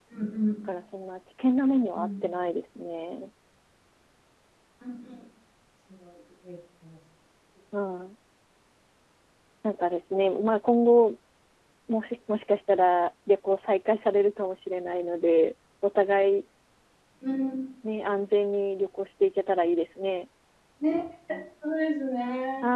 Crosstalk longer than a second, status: none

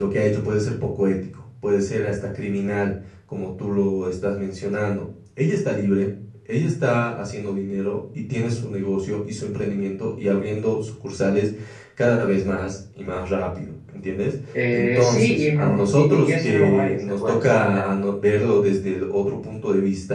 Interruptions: present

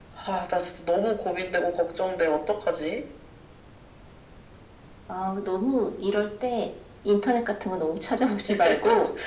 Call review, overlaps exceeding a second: none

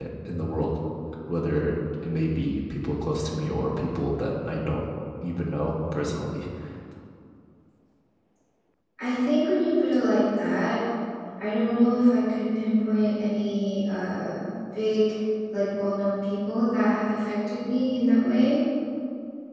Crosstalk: none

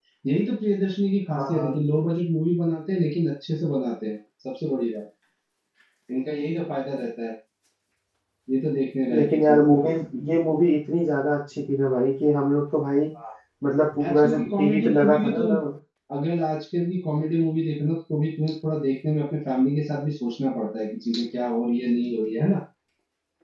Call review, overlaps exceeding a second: present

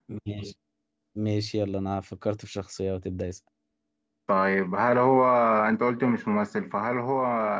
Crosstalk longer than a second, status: none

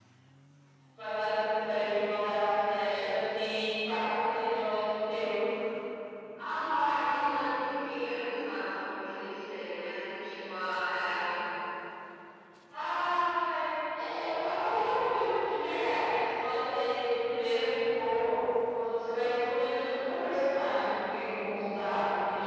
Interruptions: none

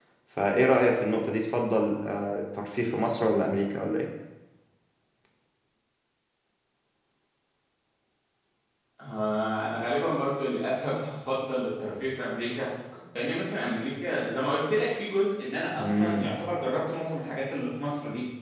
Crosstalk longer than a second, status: none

